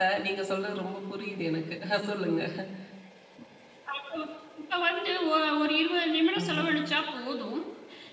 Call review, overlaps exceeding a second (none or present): none